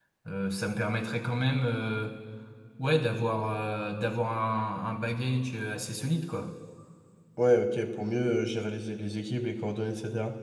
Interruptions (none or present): none